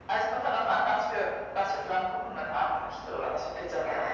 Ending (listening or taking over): taking over